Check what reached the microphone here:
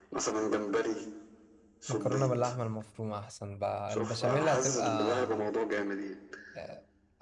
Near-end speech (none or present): present